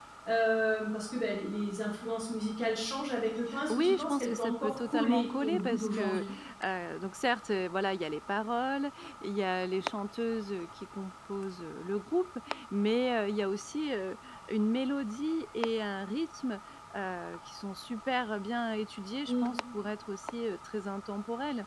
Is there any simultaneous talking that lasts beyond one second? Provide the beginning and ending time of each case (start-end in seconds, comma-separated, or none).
3.7-6.2